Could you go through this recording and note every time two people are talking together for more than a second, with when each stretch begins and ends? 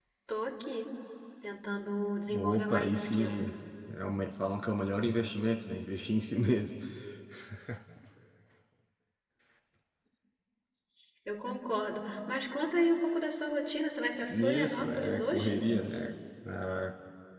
2.3-3.5, 14.3-15.6

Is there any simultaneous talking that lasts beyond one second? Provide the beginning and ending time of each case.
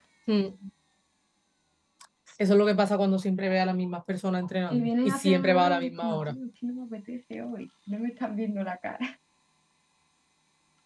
4.7-6.4

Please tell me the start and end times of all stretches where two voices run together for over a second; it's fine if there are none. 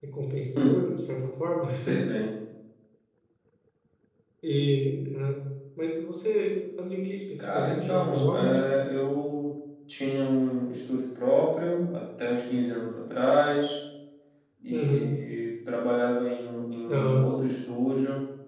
7.4-8.8

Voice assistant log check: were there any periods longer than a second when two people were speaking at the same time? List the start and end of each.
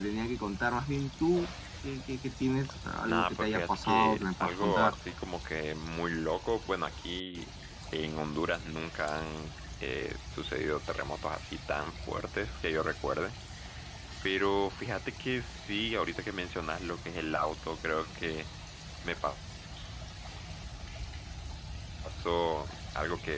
3.0-4.9

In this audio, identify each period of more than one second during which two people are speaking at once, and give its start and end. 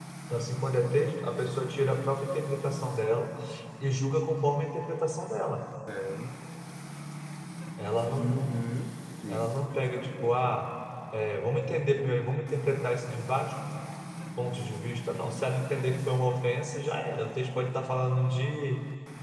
9.3-10.5

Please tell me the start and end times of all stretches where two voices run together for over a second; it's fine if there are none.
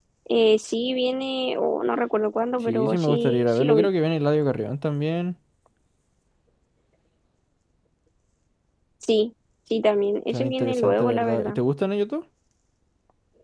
2.7-3.9, 10.3-11.6

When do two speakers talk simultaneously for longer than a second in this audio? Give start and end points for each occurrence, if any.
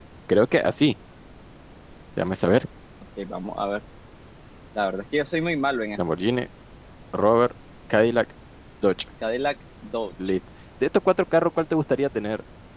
none

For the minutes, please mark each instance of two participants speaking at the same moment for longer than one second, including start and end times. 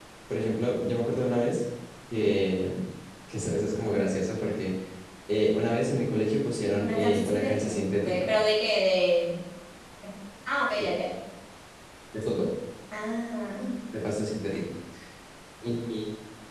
6.8-8.3

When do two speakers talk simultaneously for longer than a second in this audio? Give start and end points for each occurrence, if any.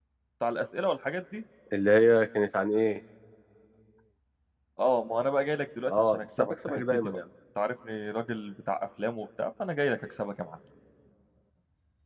5.9-7.2

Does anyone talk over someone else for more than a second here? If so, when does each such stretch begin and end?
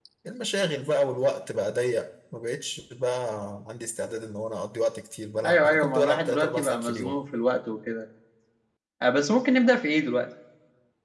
5.5-7.2

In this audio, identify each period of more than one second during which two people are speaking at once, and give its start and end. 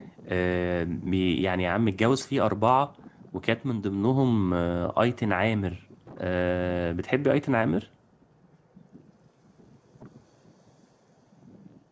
none

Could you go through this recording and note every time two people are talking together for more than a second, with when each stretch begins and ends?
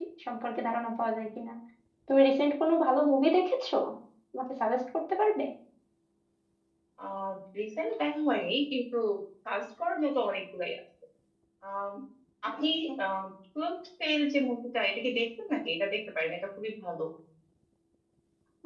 none

